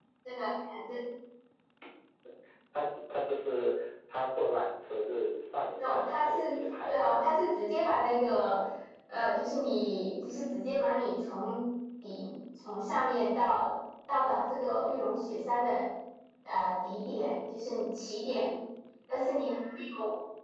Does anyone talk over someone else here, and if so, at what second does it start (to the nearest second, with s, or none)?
6 s